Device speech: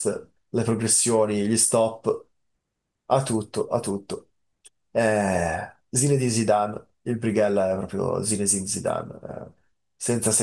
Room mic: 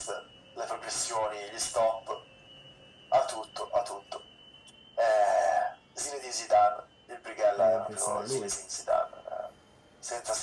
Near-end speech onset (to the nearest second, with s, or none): 7 s